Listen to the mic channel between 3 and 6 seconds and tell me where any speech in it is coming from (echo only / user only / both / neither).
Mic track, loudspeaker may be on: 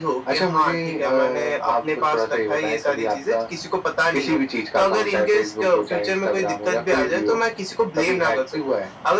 echo only